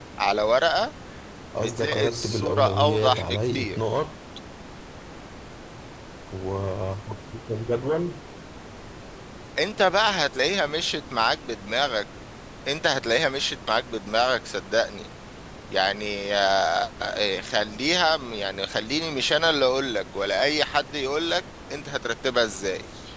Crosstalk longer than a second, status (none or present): present